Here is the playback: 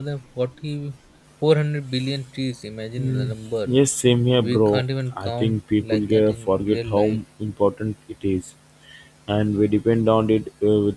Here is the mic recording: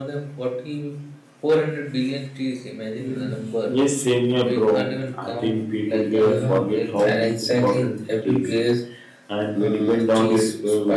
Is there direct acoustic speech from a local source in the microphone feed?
Yes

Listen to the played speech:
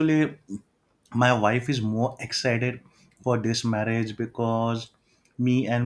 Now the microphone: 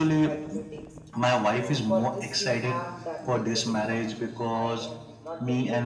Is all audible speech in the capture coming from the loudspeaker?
No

